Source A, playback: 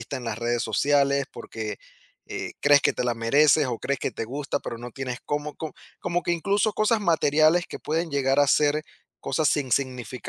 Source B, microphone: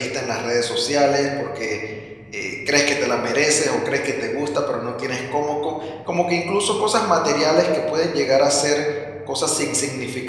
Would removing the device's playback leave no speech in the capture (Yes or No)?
Yes